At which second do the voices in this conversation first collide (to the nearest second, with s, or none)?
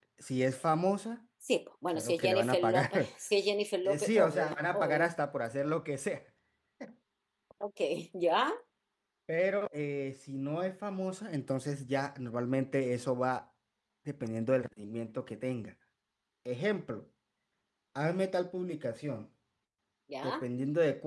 2 s